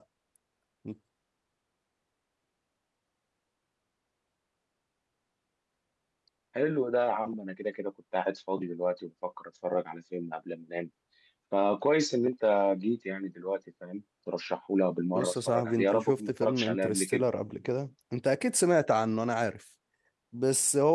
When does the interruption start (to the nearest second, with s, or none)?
15 s